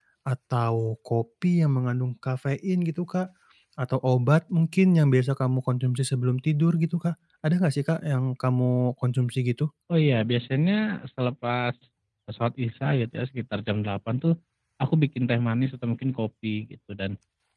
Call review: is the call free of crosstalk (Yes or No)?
Yes